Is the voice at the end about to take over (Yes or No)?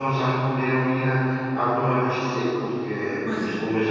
No